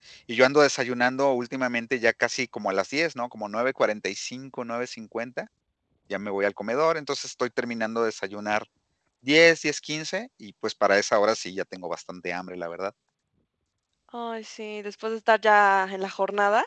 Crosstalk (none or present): none